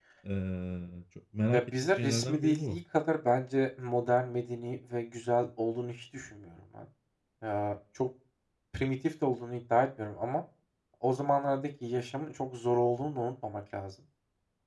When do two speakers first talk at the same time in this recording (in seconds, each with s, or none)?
1.5 s